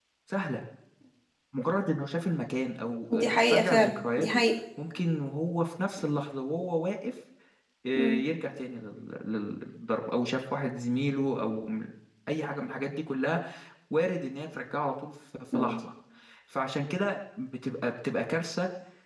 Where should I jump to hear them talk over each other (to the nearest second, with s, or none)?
3 s